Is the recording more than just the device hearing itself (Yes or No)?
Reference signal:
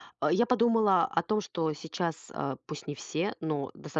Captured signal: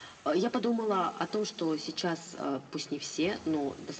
No